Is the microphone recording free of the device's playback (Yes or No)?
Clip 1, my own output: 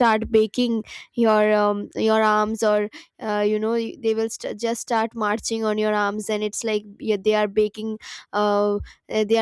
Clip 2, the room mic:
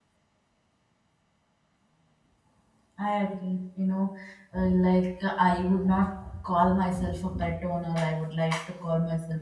Yes